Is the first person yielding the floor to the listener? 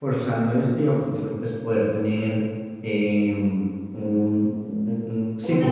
Yes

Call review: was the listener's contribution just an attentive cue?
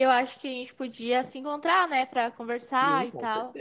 No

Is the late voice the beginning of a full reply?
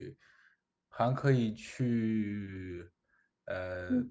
Yes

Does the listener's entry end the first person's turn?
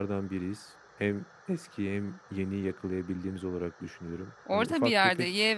Yes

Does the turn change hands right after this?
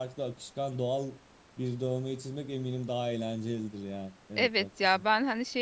Yes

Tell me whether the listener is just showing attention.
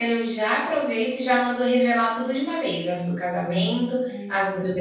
Yes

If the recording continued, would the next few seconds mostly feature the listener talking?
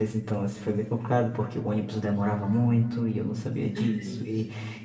No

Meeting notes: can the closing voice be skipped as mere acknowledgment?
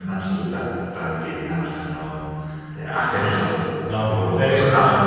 No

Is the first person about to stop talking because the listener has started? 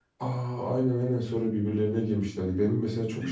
No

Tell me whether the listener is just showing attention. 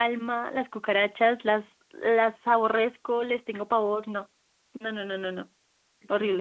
No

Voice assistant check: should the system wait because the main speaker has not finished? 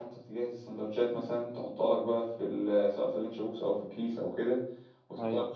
Yes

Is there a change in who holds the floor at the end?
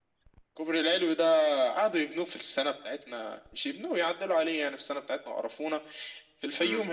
No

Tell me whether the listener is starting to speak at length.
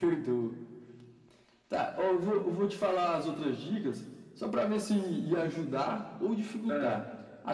No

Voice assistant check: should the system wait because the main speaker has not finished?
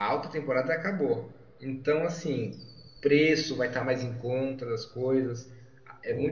Yes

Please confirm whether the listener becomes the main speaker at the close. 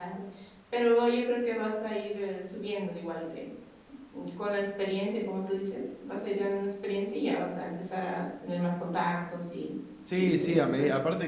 Yes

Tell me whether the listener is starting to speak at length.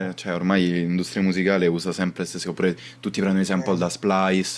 No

